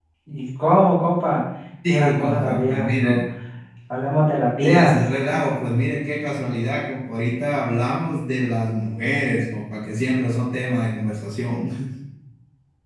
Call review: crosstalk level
present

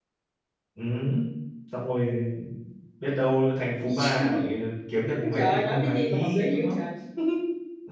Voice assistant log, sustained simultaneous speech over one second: present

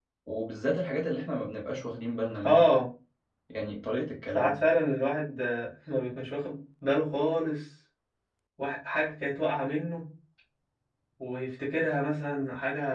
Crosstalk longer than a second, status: none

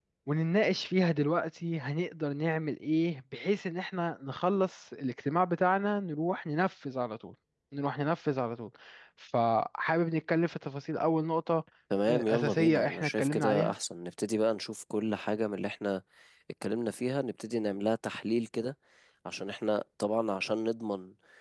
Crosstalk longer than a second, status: present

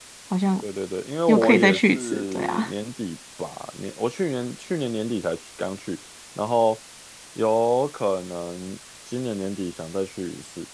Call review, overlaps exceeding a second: present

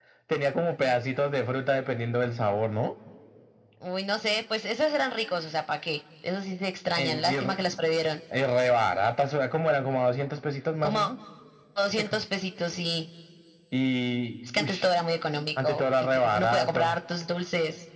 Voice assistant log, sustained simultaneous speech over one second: present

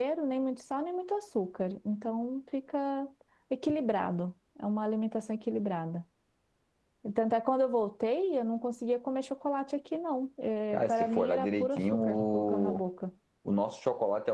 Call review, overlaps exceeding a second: present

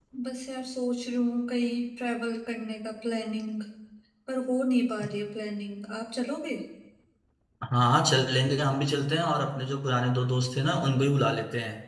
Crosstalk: none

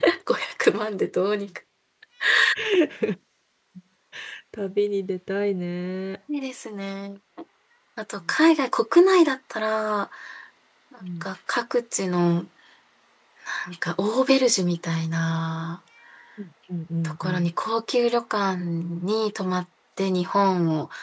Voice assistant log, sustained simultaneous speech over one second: none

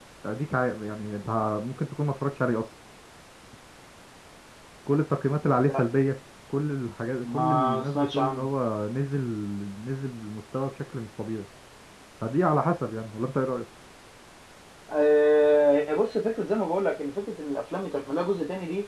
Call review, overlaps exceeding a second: present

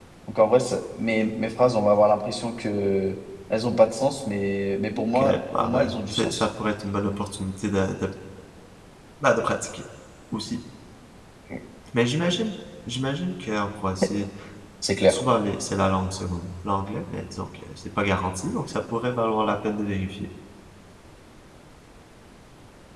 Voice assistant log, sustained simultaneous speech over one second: present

